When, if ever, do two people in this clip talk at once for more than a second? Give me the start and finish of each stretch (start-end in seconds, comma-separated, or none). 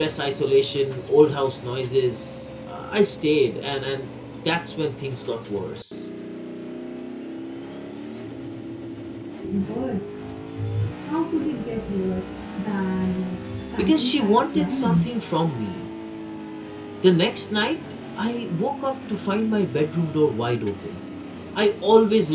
13.8-15.1